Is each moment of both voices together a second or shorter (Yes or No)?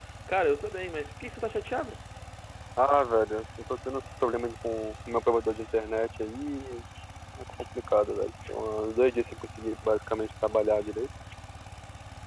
Yes